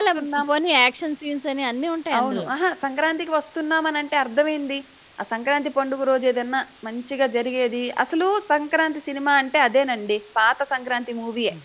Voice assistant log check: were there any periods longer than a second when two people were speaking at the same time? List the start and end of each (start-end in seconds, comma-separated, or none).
none